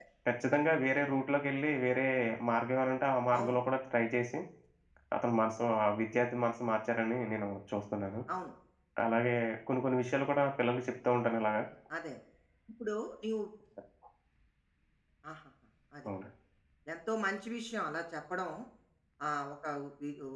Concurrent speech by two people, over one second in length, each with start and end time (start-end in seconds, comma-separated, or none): none